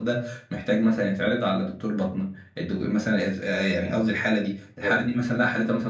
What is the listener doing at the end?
listening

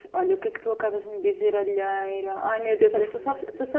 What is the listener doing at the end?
listening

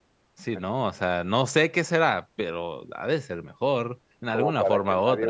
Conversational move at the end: taking over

